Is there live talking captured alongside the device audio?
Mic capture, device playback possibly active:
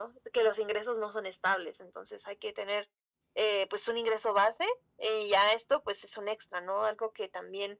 No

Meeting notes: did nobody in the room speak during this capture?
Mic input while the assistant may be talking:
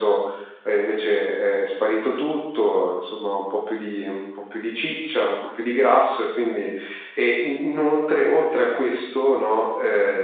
Yes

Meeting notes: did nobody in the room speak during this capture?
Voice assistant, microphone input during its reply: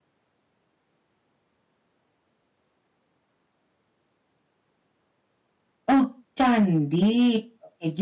No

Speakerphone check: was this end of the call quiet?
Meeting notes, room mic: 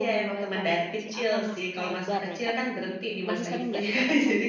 No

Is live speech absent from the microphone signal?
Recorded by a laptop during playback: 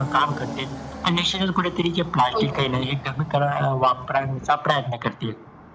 No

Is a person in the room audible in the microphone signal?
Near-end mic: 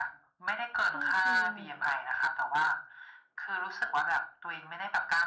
Yes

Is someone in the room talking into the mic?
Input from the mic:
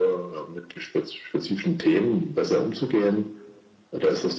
No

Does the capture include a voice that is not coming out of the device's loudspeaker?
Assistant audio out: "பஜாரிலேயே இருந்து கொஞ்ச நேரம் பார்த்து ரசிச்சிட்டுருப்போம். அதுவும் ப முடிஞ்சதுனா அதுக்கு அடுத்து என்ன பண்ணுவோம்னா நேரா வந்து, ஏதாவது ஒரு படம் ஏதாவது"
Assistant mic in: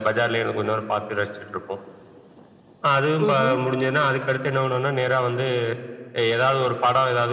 Yes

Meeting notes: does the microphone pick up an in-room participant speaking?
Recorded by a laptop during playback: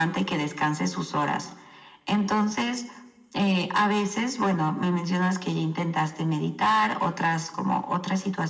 No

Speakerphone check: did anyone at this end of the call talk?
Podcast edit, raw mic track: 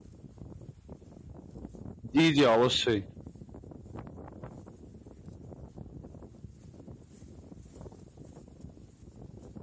Yes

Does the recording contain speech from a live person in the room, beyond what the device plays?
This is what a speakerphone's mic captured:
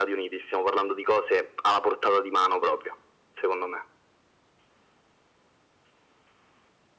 No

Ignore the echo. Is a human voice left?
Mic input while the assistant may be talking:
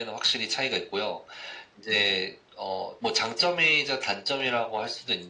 No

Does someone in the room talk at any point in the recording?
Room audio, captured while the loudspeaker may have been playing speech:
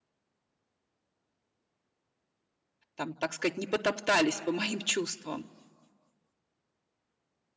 Yes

